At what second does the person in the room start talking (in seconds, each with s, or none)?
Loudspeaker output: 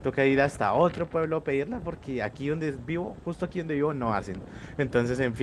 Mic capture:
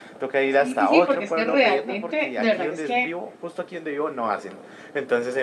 0.6 s